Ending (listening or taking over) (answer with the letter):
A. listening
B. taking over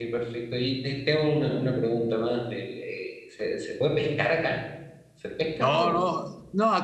B